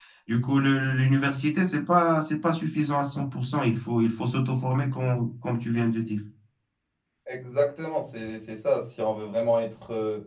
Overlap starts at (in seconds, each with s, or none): none